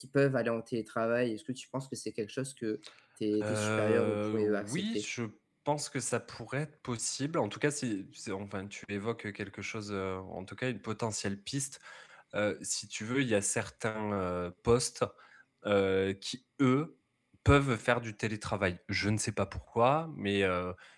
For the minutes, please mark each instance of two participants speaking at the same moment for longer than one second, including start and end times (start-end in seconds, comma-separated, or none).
3.4-5.0